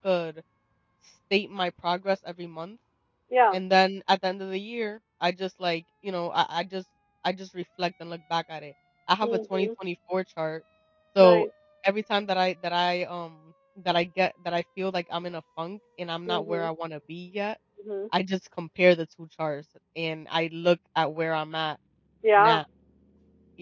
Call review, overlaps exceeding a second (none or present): none